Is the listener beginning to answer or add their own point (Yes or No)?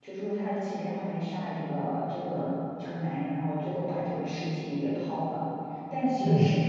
No